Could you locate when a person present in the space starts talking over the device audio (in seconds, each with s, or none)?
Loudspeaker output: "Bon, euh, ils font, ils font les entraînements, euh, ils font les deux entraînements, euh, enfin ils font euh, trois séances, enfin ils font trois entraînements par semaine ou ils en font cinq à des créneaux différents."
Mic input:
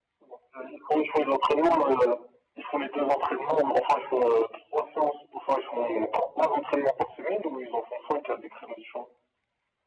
none